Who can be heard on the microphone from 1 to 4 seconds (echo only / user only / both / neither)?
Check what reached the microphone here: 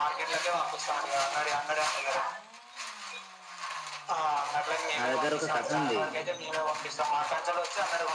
echo only